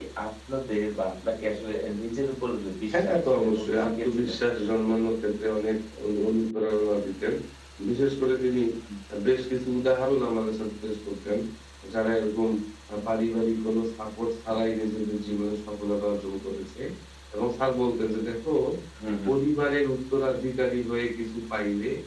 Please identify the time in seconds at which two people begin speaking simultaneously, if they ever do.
2.9 s

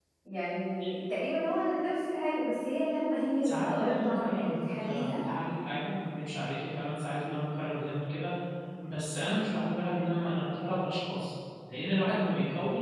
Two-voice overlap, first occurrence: 3.4 s

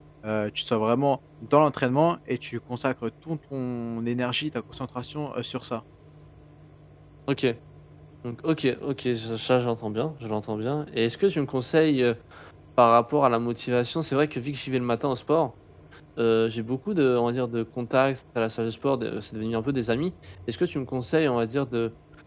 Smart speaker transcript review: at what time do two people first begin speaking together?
none

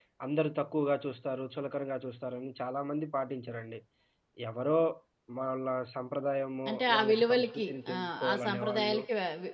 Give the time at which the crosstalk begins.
6.7 s

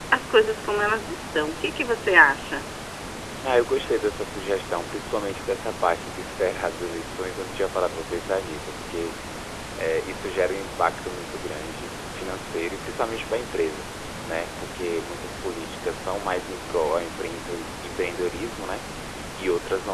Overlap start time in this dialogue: none

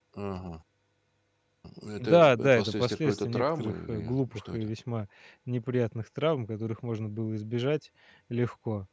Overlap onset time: 2.0 s

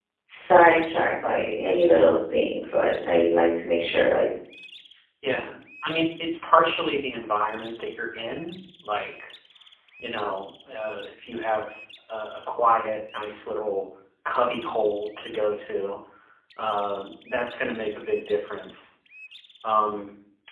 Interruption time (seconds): none

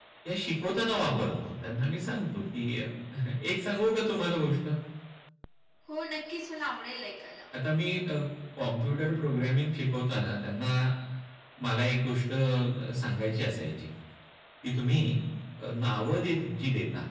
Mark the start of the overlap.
none

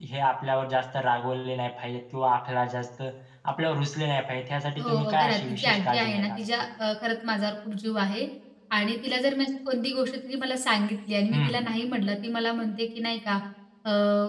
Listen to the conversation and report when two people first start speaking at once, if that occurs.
4.8 s

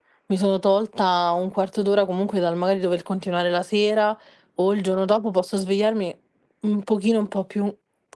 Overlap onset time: none

